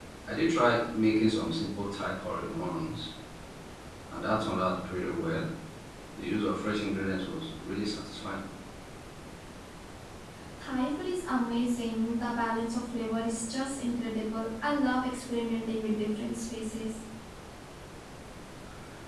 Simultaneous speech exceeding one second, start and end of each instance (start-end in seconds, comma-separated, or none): none